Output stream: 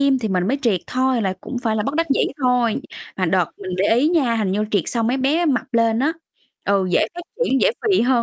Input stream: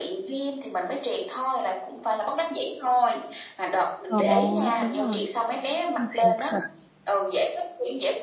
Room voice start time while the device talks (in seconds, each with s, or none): 4.1 s